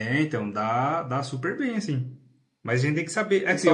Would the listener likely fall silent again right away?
Yes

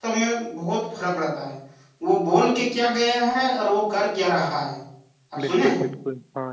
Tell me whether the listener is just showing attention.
No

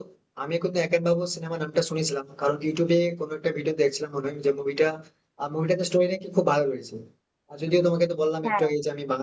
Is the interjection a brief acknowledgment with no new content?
Yes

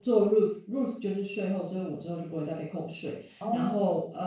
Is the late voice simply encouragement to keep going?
Yes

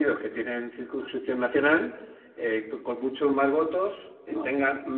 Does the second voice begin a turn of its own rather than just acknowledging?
No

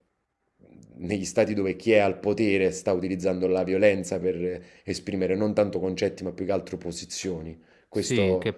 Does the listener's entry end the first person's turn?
Yes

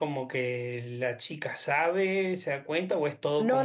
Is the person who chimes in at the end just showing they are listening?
No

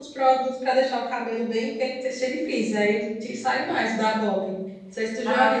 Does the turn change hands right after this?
No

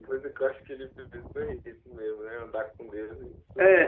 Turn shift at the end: Yes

